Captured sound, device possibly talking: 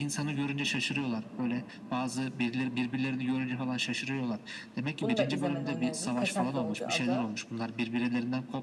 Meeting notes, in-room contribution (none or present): present